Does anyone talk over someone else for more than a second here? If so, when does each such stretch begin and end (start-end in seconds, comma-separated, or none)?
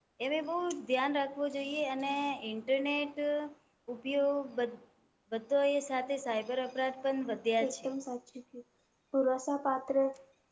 none